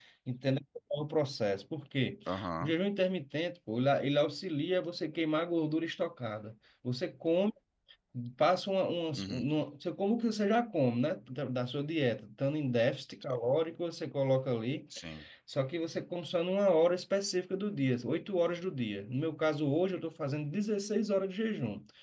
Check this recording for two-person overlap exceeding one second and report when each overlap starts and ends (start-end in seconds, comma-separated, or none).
none